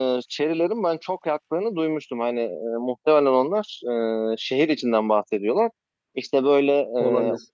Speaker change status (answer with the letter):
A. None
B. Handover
A